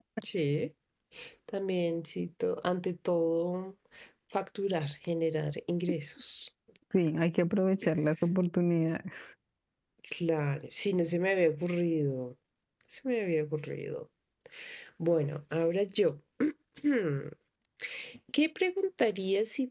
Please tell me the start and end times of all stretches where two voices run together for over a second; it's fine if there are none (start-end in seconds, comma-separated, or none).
none